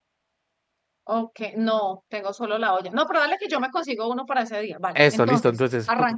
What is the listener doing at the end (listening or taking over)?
taking over